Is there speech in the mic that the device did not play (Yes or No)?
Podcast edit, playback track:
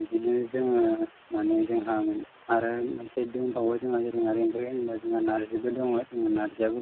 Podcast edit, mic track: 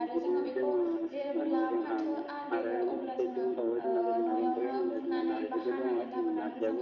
Yes